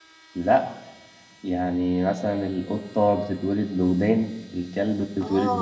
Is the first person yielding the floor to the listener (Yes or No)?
Yes